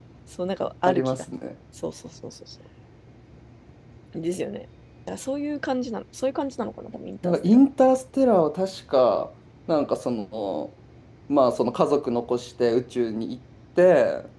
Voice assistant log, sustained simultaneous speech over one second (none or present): none